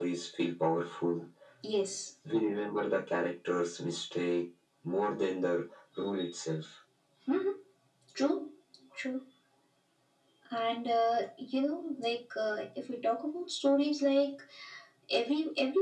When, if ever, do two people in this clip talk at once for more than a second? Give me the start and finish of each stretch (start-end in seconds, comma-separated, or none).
none